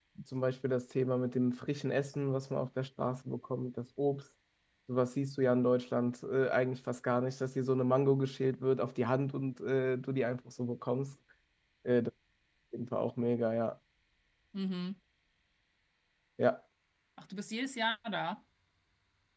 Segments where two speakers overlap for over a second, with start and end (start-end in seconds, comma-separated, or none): none